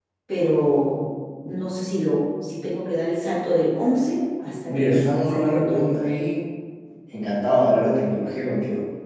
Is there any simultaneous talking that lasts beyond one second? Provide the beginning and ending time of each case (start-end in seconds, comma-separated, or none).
4.7-6.1